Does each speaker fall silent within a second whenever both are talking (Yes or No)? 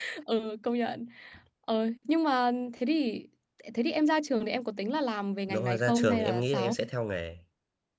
No